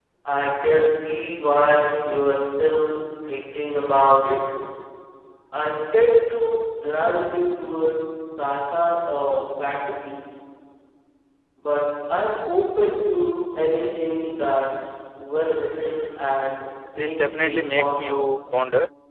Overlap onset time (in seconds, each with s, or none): 17.0 s